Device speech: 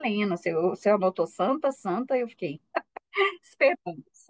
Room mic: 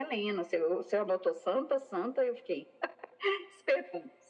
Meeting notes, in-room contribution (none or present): none